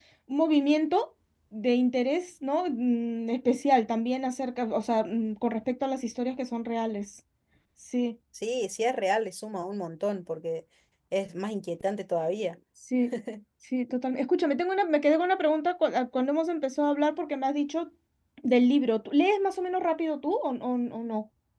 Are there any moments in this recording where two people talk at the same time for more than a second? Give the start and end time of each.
none

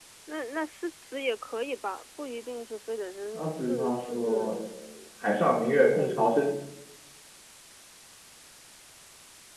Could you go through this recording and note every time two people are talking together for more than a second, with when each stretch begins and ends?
3.3-4.6

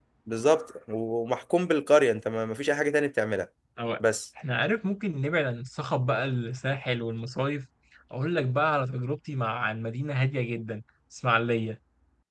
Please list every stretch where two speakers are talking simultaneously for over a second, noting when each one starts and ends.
none

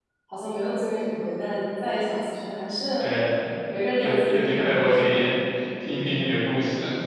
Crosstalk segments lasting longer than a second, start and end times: 4.0-5.2

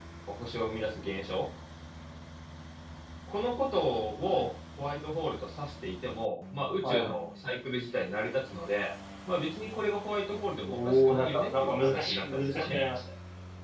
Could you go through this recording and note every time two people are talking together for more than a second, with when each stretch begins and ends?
10.7-12.8

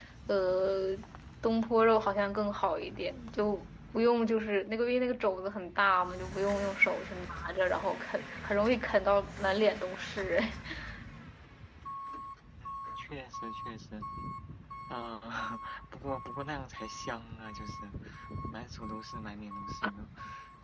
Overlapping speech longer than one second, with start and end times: none

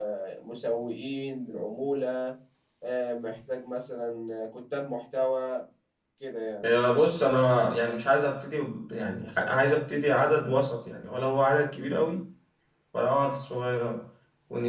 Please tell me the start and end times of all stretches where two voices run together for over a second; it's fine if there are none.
none

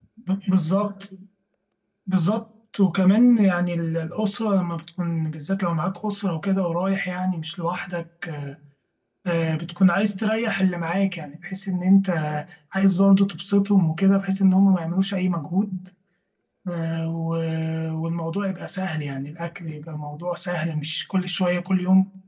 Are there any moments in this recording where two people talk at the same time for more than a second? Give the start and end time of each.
none

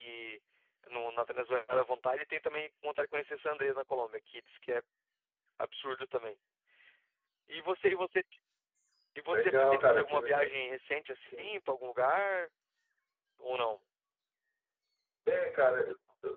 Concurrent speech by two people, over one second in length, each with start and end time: 9.3-10.5

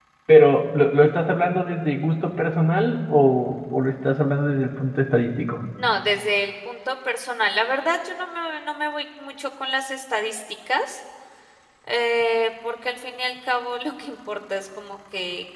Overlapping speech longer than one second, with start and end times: none

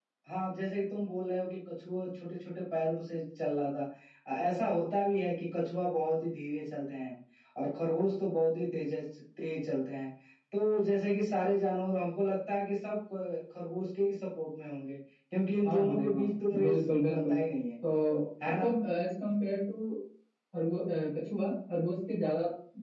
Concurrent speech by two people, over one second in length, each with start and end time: 15.6-17.3

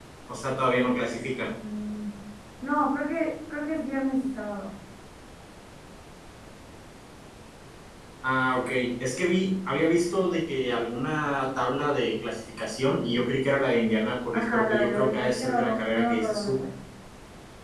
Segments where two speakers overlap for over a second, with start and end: 14.3-16.6

